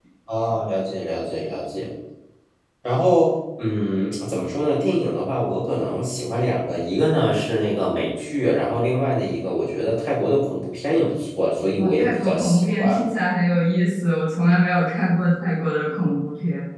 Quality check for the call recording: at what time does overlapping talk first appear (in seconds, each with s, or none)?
11.7 s